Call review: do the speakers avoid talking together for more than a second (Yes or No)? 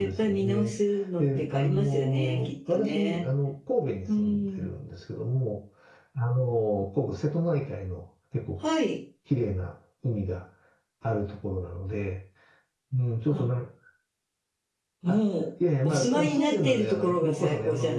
No